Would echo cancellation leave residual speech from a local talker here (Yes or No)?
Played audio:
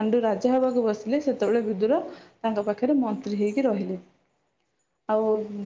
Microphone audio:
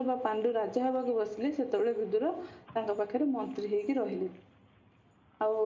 No